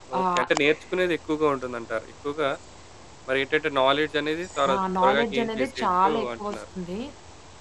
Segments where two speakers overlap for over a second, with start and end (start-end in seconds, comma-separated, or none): 4.7-6.6